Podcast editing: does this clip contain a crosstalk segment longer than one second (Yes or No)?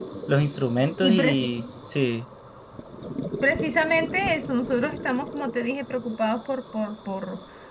No